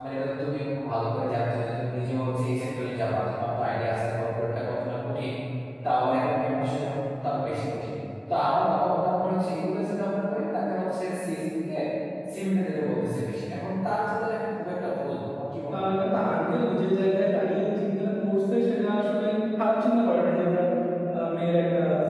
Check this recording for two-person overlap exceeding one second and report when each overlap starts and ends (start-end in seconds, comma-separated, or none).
none